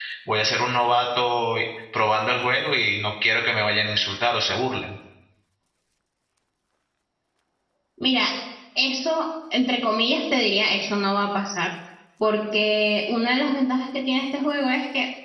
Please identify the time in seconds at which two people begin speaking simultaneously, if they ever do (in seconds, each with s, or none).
none